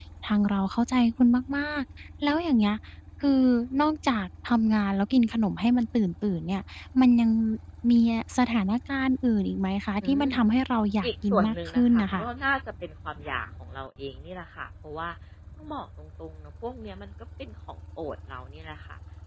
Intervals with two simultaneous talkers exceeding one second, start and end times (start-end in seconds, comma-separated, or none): 11.0-12.2